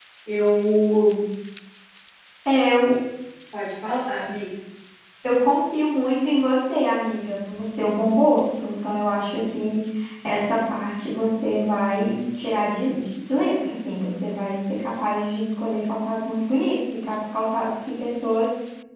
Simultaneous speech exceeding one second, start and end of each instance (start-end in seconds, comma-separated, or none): none